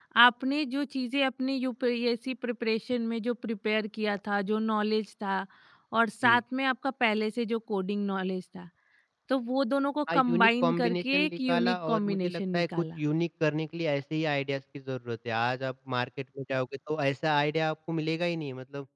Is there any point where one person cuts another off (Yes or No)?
Yes